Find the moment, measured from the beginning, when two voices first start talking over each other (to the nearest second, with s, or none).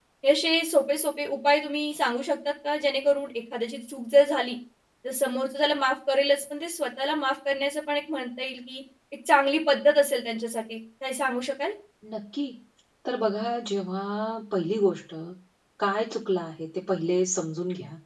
none